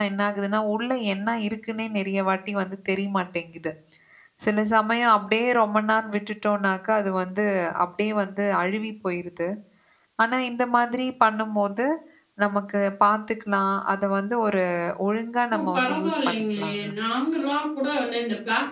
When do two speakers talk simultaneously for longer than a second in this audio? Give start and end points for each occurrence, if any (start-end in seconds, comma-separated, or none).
15.5-16.9